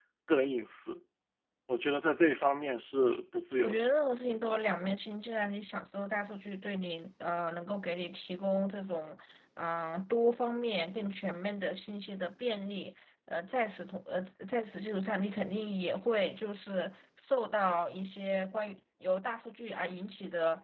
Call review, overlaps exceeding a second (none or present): none